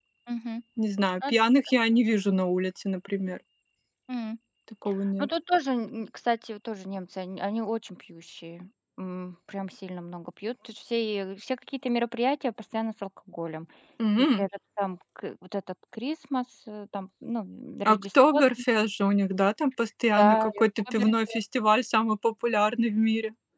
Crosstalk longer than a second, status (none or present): present